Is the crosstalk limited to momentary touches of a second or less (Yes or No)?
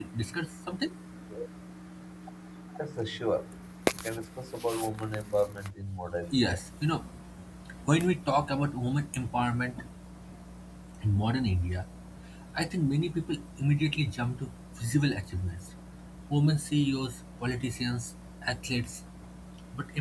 Yes